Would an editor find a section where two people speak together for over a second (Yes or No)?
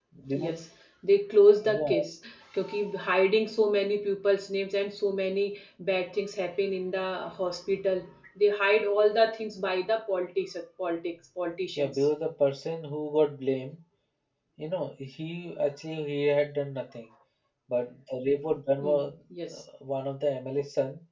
No